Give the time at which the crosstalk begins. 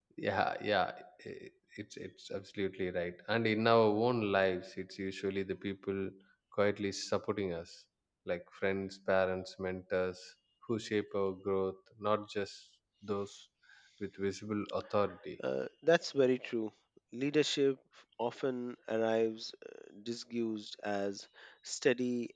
none

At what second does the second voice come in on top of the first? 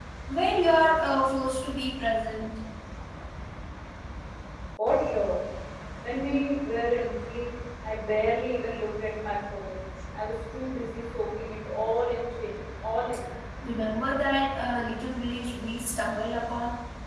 none

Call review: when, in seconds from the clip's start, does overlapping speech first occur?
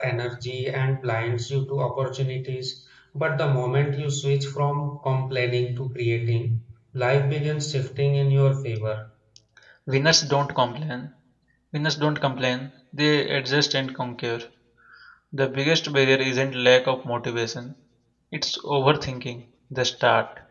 none

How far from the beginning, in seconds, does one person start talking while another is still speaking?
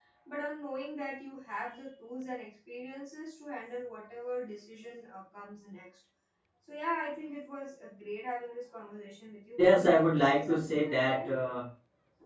9.6 s

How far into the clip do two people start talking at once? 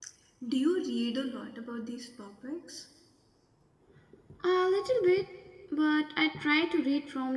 none

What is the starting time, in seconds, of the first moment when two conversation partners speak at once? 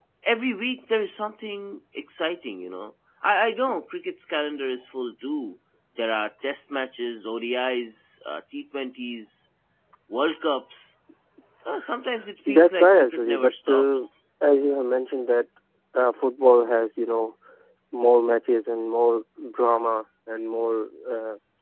12.4 s

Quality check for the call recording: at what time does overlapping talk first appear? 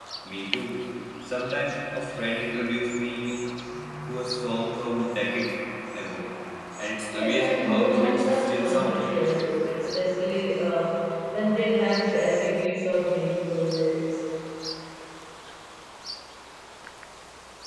7.1 s

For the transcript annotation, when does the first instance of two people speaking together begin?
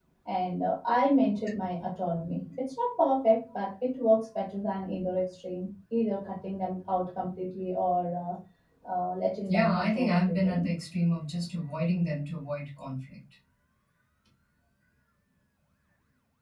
9.5 s

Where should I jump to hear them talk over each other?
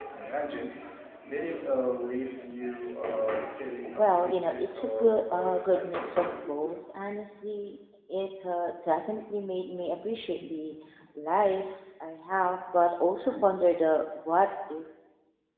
3.8 s

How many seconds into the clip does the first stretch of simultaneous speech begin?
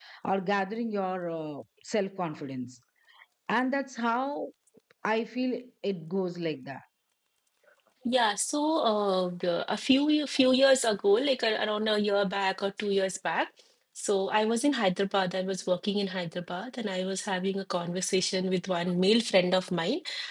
none

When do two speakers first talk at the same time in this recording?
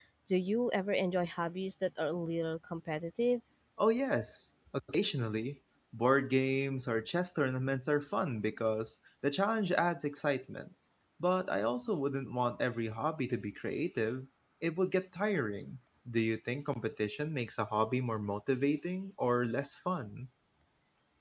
none

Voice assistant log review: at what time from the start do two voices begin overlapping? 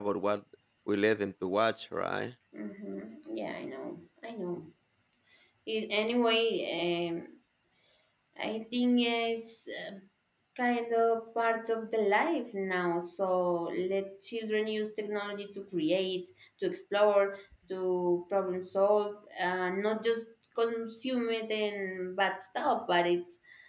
none

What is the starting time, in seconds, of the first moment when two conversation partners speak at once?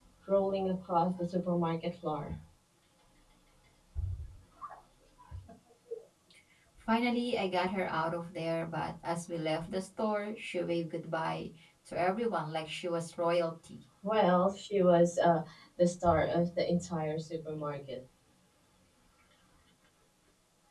none

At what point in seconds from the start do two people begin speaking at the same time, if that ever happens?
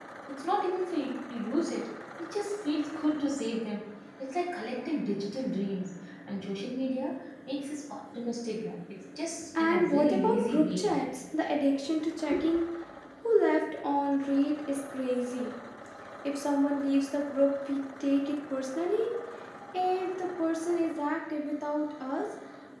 9.6 s

